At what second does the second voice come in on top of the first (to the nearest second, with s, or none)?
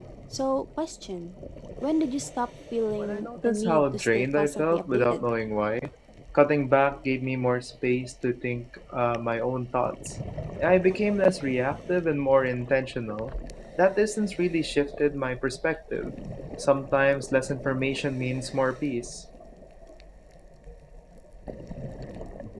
3 s